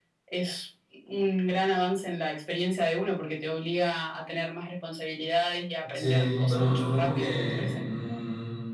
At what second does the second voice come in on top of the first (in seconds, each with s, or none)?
5.8 s